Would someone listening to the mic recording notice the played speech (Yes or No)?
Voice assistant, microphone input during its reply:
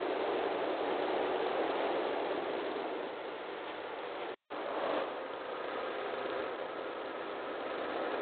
No